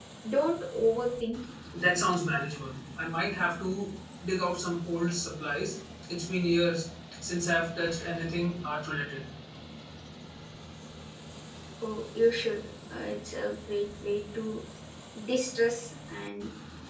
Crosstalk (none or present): none